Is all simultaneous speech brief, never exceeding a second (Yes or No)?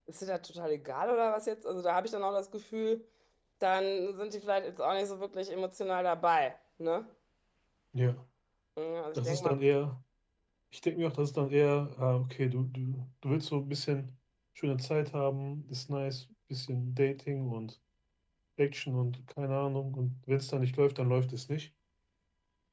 Yes